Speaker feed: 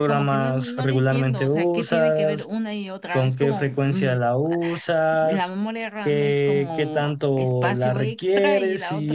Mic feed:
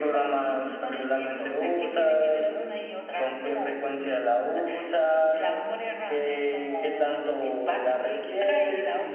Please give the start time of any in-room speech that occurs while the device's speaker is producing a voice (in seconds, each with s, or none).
none